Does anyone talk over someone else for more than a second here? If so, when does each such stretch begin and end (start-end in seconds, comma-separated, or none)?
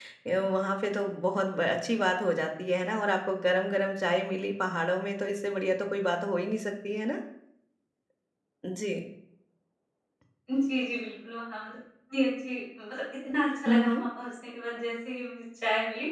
none